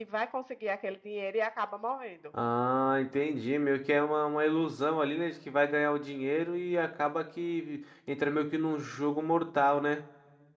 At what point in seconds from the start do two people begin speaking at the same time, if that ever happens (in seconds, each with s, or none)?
none